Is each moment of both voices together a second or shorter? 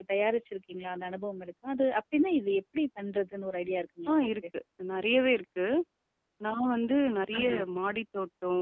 Yes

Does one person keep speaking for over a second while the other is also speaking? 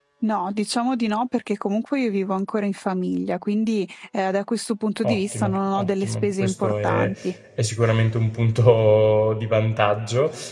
Yes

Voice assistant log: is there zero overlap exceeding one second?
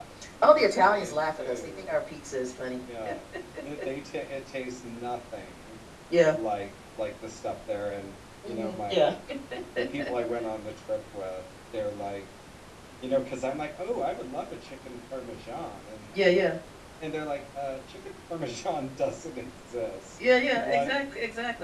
No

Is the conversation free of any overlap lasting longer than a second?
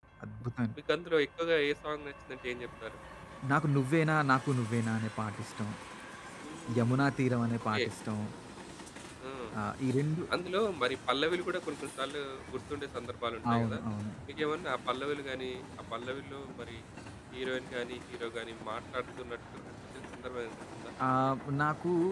Yes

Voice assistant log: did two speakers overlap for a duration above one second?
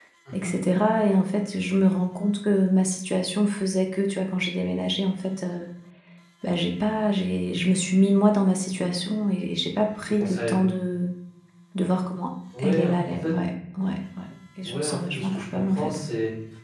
Yes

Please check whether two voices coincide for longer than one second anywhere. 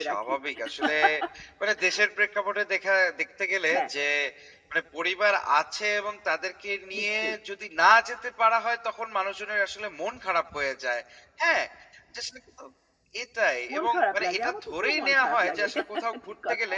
Yes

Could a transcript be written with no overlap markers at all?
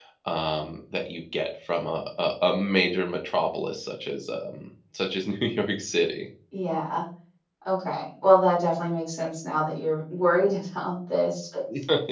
Yes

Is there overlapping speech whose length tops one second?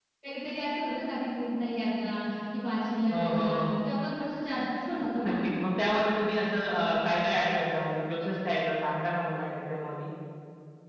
No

